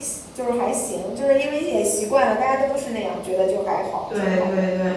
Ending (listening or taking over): taking over